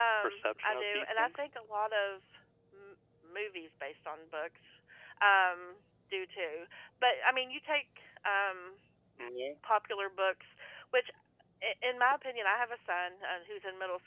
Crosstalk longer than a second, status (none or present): present